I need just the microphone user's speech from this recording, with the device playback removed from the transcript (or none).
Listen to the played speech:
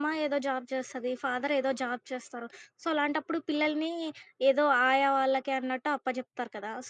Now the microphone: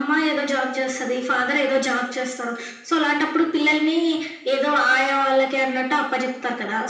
none